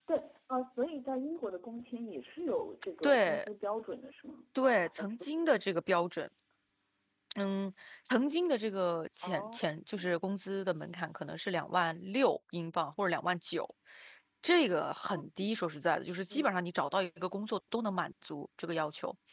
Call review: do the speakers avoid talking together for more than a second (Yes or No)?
Yes